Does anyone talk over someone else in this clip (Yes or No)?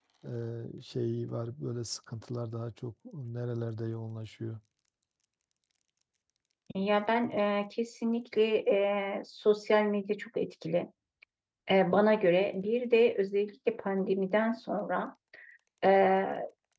No